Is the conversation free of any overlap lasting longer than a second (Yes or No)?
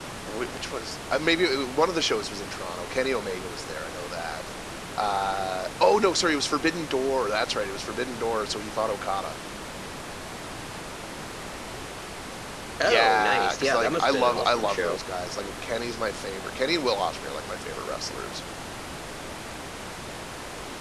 No